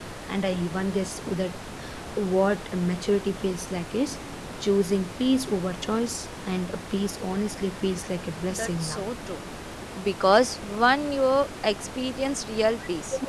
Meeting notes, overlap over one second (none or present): none